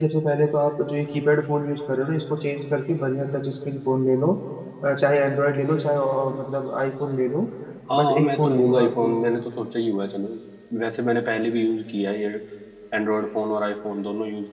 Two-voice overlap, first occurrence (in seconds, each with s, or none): 8.0 s